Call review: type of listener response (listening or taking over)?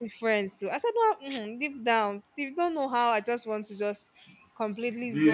listening